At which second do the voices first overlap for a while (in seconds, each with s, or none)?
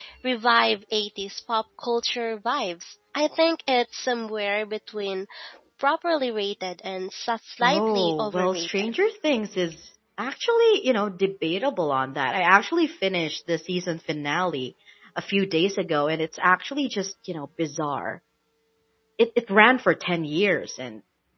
7.6 s